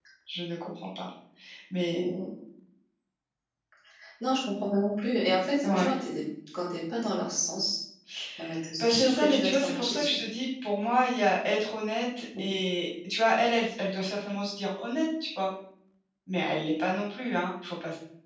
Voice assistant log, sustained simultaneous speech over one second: present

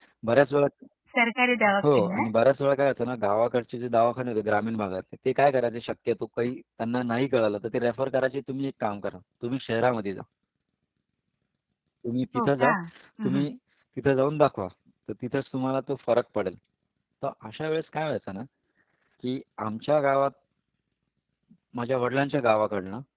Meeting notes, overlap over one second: none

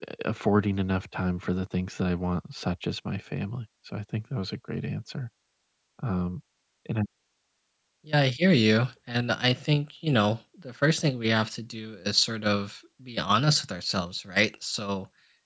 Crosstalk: none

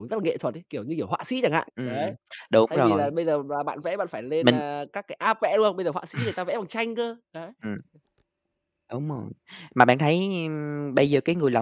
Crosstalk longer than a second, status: none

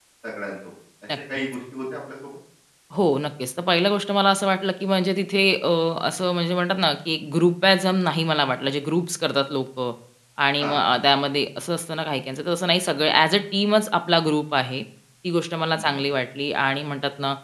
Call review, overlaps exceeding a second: none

